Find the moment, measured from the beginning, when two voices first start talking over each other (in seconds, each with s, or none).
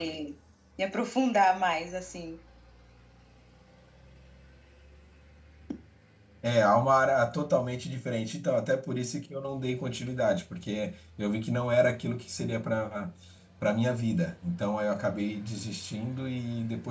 none